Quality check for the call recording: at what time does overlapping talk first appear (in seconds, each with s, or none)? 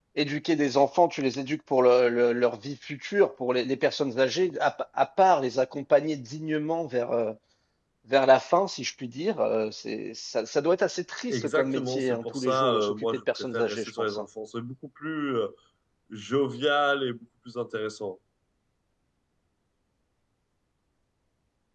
11.3 s